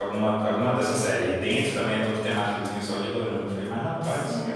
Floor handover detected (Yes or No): Yes